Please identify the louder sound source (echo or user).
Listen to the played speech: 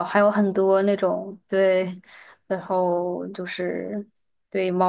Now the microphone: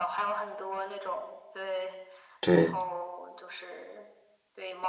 user